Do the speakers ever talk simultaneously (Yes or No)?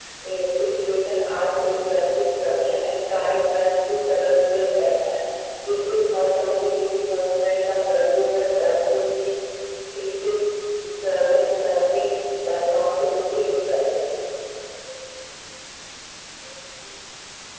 No